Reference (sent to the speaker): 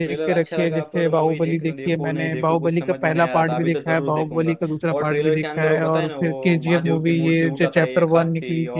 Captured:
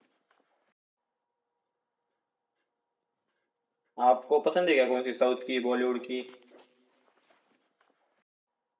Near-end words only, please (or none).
आपको पसंद है क्या कौन सी साउथ की बॉलीवुड की